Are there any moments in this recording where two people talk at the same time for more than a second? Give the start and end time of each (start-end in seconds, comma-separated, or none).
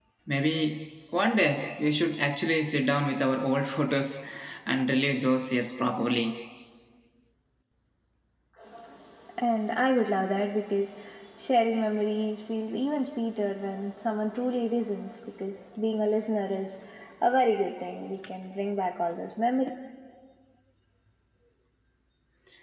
none